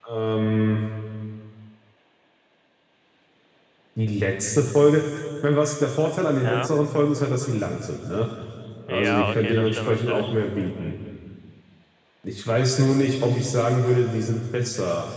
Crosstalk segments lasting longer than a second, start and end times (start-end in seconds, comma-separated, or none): 8.9-10.3